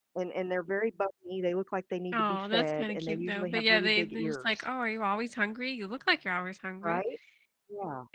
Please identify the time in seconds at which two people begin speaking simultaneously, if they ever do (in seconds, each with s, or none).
2.1 s